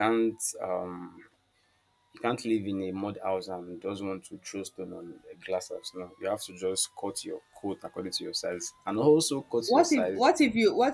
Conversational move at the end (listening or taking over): taking over